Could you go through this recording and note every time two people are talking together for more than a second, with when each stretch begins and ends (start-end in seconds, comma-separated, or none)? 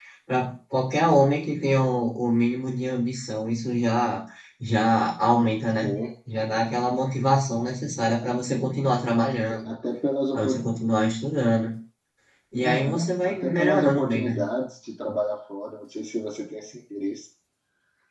12.6-14.4